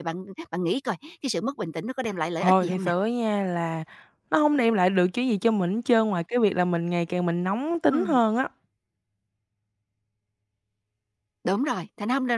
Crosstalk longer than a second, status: none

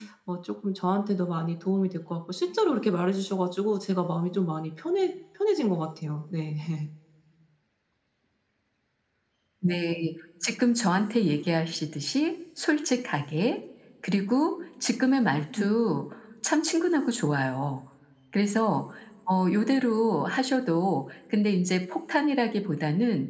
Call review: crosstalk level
none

